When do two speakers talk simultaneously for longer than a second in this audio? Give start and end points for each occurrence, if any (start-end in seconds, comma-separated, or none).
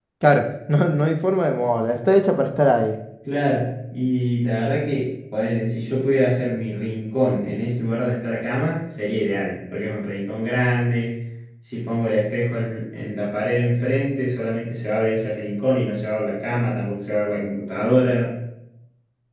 none